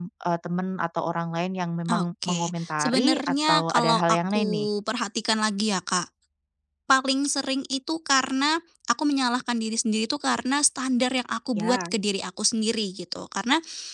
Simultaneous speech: Yes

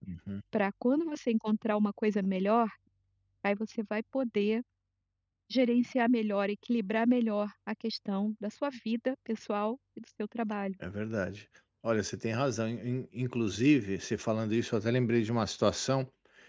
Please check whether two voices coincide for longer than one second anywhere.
No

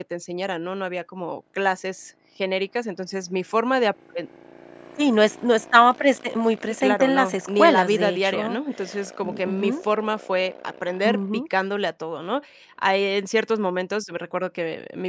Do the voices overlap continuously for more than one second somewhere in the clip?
Yes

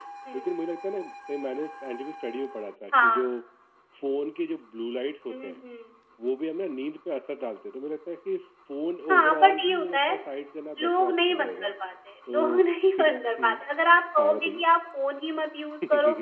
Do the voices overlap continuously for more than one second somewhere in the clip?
Yes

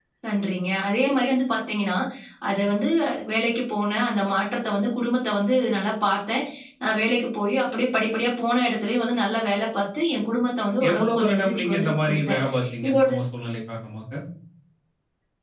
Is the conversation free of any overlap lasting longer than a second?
No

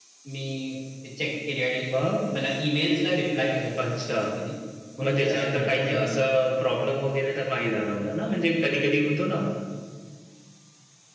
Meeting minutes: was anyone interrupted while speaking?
Yes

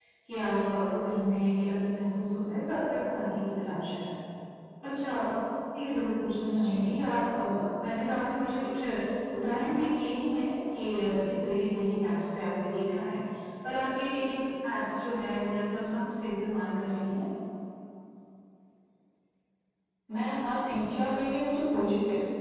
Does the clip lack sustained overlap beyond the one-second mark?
Yes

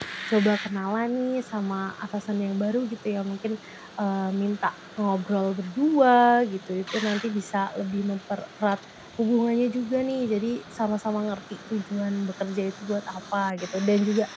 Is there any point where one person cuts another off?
No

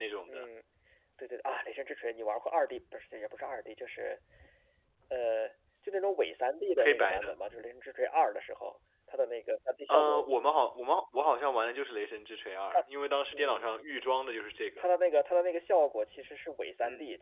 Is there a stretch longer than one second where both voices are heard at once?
No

